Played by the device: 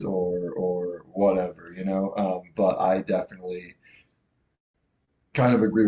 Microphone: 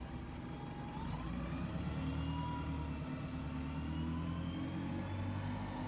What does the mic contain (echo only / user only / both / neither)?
neither